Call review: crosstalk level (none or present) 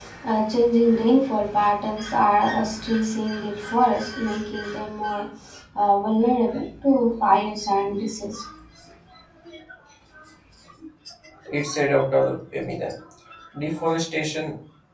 none